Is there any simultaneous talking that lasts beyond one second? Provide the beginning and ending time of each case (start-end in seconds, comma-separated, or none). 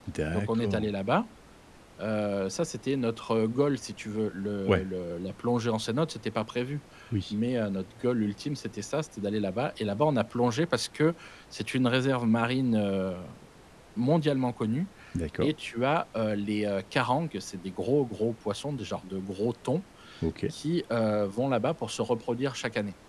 none